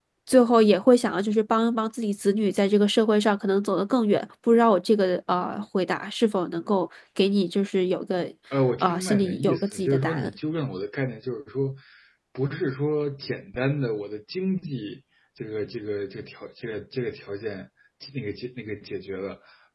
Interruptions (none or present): present